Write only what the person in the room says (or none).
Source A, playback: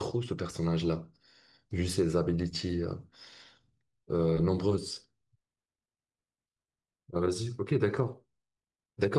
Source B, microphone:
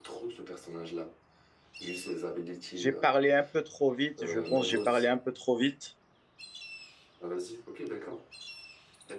j'ai parlé un peu trop vite. Je pense que j'ai parlé un peu trop vite,